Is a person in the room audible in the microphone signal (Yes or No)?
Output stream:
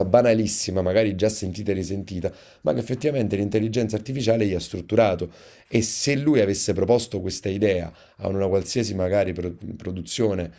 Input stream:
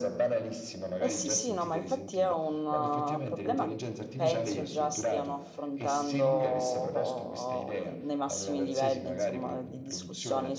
Yes